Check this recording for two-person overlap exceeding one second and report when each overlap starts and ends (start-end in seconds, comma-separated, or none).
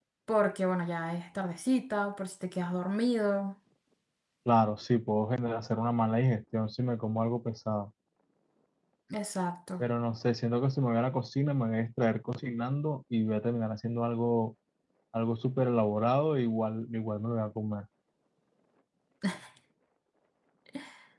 none